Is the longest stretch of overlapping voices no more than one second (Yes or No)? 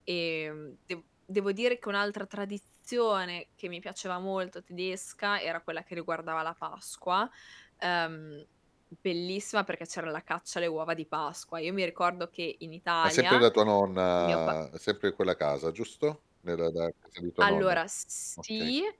Yes